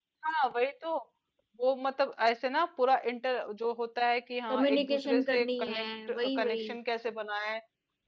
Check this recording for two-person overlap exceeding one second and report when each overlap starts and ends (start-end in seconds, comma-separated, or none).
4.5-6.7